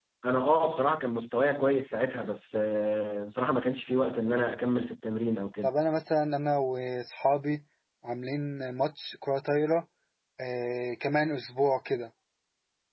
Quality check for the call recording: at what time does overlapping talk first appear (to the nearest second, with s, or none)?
none